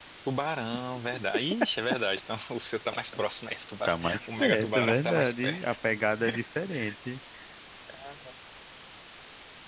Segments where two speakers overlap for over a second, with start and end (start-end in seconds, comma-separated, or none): 3.9-5.8